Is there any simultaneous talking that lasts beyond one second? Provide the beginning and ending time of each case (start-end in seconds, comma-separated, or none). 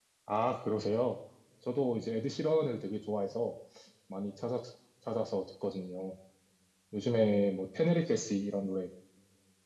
none